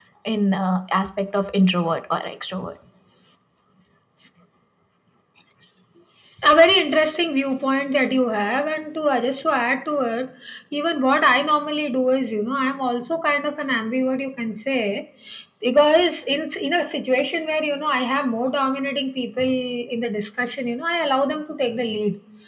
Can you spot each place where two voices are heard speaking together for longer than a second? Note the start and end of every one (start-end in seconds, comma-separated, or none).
none